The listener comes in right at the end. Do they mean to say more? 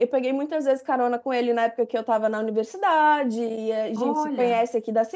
No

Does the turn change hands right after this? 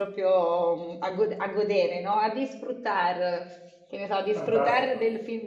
No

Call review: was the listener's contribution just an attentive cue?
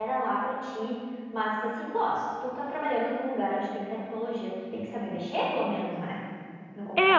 No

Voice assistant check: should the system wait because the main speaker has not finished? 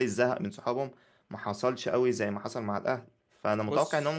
Yes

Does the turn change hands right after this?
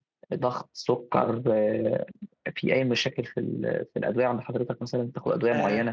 Yes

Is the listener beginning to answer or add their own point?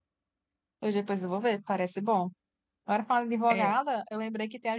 No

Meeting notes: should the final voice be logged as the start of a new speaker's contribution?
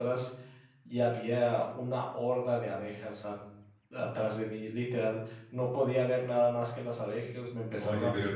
Yes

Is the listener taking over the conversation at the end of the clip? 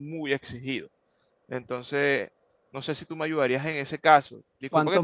No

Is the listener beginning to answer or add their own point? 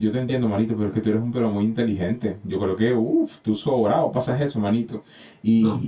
No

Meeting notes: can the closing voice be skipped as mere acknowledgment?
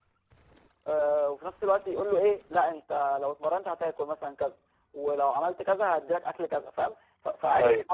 Yes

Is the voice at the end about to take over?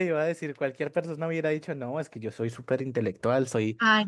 No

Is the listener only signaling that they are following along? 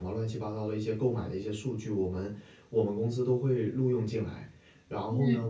Yes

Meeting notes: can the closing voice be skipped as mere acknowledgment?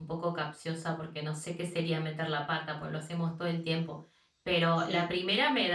Yes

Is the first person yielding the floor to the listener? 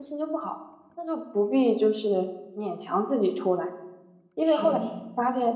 No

